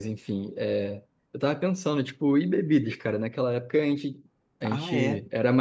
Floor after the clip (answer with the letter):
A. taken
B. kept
B